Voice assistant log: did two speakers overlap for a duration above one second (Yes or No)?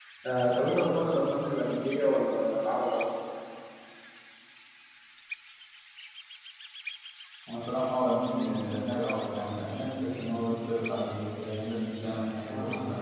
No